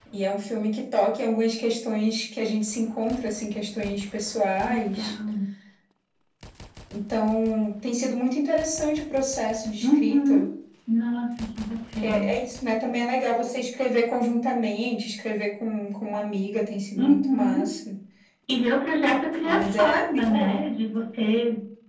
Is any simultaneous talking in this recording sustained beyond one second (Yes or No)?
Yes